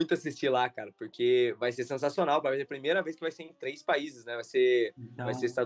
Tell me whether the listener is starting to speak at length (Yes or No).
No